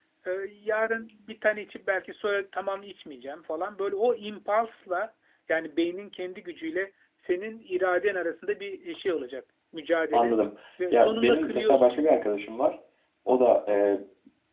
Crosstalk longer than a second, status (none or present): present